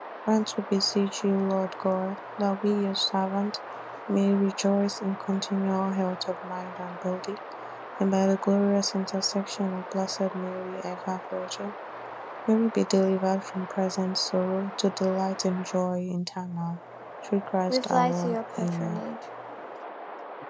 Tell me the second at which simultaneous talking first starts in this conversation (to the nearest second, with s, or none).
18 s